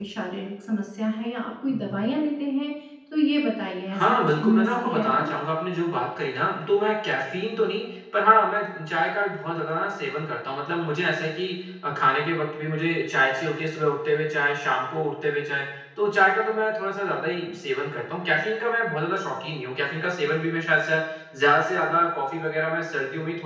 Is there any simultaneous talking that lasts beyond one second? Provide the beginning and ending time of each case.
4.0-5.3

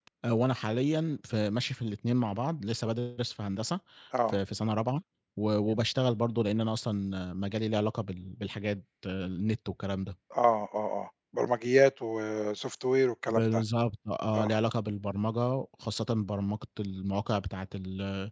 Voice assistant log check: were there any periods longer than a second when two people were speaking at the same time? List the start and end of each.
none

